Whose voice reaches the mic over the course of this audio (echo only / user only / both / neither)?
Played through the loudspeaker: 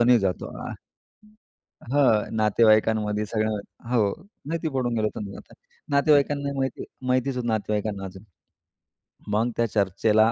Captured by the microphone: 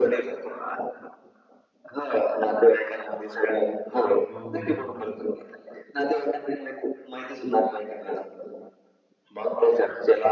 both